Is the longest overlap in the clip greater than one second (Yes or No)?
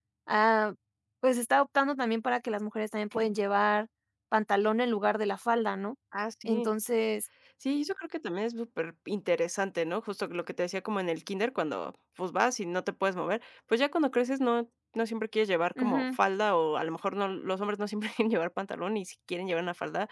No